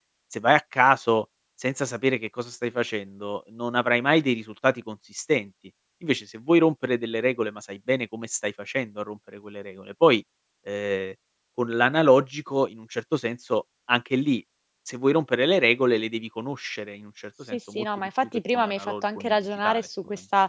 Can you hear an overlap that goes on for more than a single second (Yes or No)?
Yes